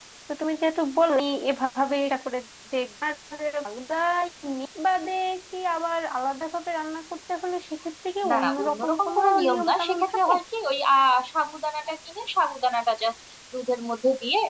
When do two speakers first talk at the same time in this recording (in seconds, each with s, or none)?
8.2 s